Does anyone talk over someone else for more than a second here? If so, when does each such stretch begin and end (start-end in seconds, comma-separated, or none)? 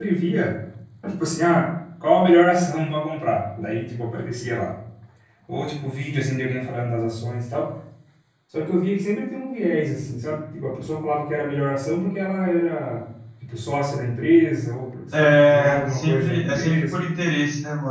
15.1-17.0